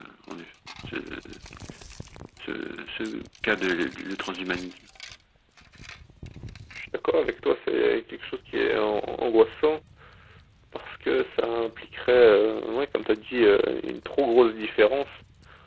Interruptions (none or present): none